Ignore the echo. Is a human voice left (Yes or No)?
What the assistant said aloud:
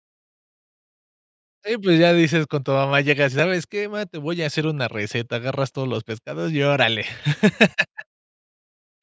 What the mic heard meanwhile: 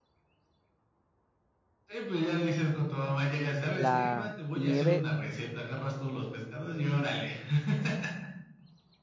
Yes